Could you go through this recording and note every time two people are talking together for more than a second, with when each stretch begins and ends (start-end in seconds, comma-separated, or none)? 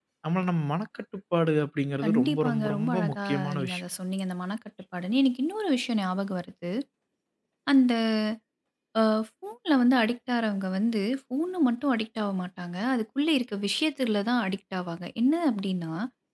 2.0-3.8